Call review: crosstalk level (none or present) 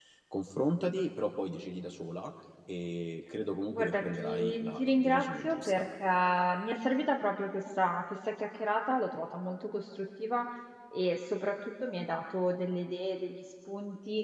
present